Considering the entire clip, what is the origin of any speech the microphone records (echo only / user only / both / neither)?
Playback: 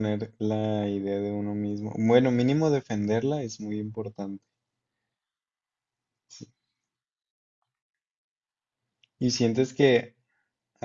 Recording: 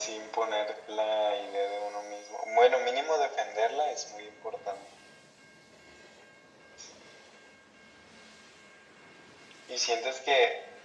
echo only